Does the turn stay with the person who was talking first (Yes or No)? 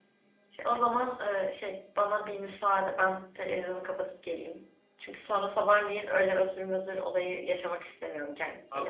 No